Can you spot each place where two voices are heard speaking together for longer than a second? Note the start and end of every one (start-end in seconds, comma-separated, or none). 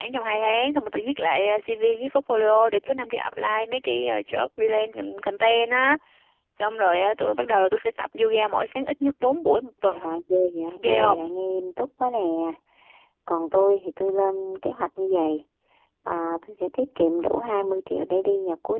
none